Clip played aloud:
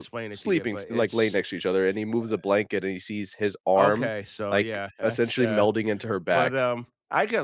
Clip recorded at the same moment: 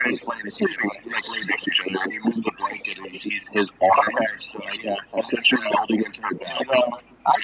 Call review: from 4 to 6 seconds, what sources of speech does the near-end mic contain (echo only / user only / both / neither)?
echo only